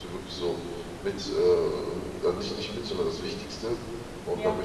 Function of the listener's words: listening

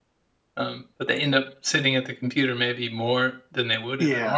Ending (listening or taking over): taking over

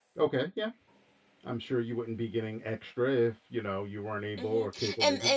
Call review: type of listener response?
taking over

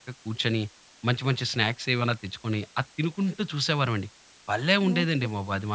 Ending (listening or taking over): taking over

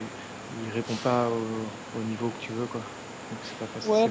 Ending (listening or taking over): taking over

